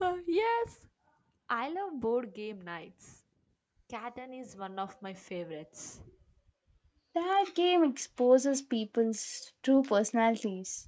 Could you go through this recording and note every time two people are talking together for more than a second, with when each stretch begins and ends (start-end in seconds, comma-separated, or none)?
none